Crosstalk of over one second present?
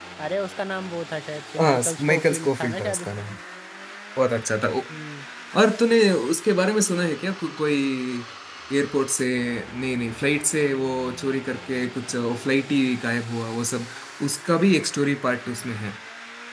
Yes, from 1.6 s

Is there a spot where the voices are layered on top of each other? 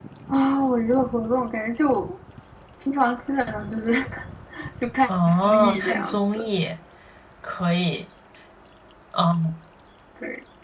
Yes, from 5.1 s

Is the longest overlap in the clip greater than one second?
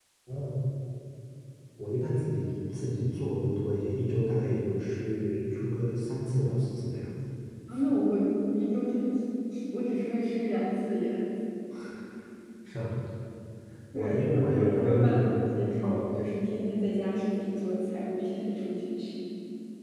Yes, from 13.9 s

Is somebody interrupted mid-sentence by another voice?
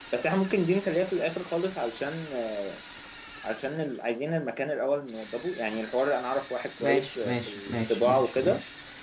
Yes, from 6.8 s

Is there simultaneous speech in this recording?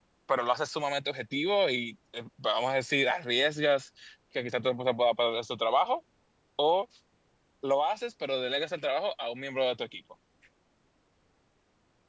No

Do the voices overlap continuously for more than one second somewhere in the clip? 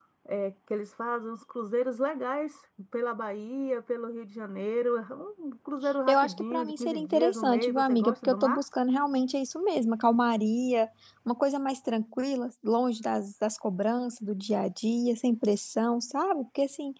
Yes, from 6.1 s

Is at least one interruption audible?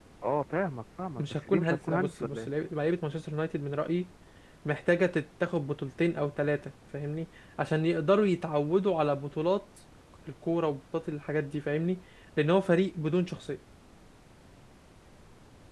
Yes, from 1.2 s

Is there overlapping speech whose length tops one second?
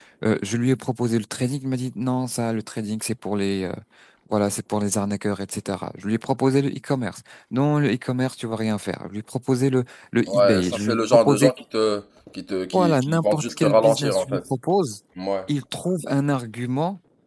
Yes, from 10.3 s

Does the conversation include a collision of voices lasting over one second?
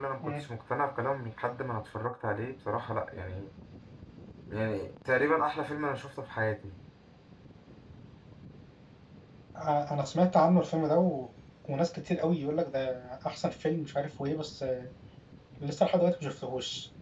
No

